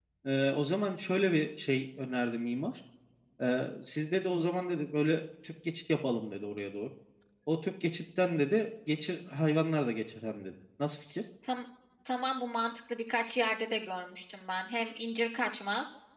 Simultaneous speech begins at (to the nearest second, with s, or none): none